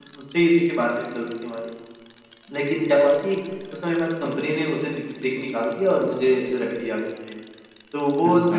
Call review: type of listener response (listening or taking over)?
listening